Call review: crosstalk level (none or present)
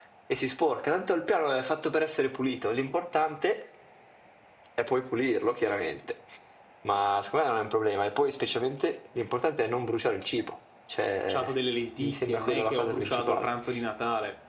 present